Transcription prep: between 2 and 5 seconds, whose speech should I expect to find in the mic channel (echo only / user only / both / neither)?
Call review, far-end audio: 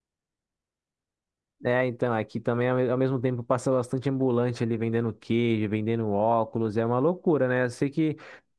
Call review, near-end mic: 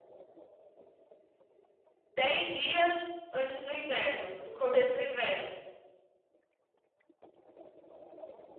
user only